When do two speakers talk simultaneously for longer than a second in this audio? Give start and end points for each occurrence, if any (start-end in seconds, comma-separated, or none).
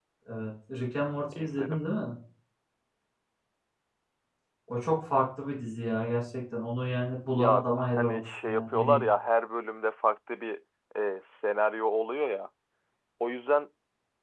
7.3-9.0